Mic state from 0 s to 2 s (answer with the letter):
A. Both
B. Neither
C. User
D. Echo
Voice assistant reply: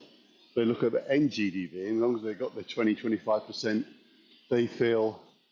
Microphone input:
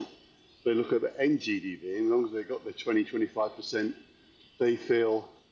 D